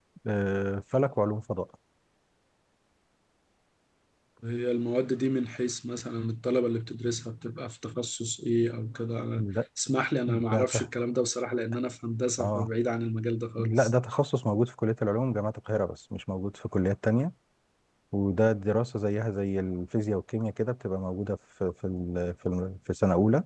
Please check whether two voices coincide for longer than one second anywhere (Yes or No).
No